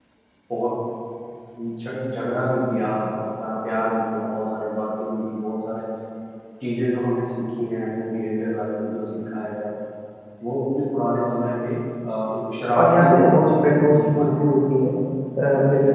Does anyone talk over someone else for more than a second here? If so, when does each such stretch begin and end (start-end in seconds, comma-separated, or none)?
12.8-14.6